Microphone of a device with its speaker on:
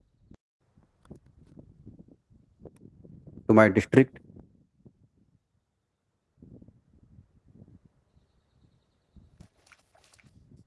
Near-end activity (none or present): present